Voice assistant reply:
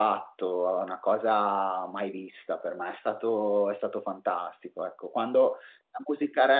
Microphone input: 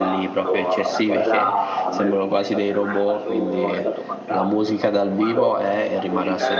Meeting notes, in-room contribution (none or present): present